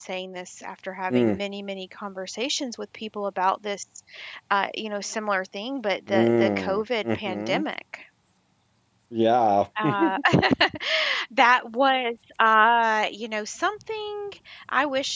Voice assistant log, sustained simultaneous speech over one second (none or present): present